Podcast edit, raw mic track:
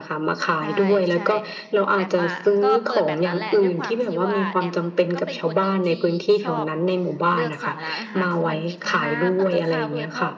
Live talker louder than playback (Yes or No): No